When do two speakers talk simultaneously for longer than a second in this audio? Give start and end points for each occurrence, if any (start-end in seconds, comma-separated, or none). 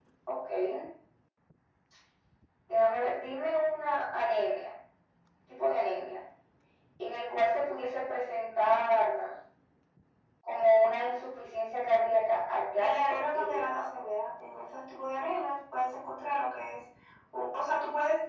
12.8-14.0